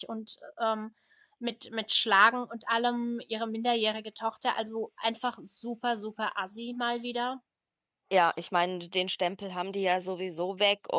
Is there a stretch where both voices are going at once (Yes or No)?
No